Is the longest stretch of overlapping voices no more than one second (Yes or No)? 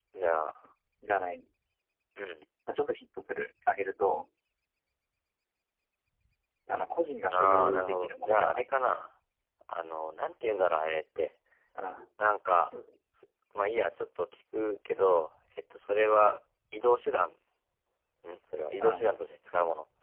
No